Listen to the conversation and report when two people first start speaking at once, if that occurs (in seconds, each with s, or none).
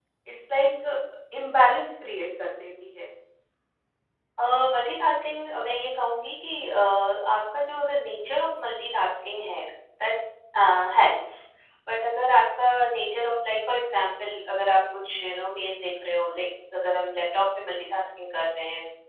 none